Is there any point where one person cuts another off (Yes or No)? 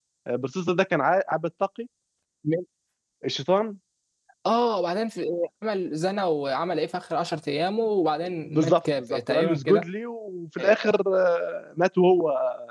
Yes